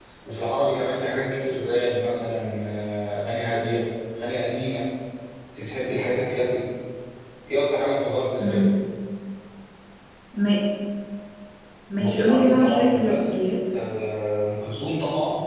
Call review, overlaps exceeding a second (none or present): present